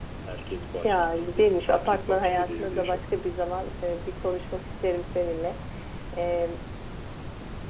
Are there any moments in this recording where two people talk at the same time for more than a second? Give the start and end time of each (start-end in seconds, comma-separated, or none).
0.8-3.0